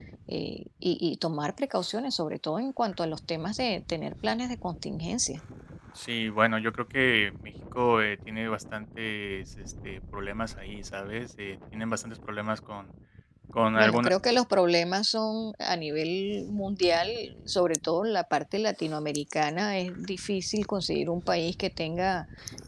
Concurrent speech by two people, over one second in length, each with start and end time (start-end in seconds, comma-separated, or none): none